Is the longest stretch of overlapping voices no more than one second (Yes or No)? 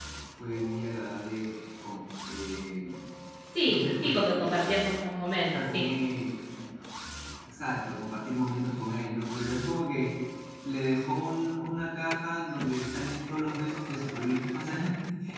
No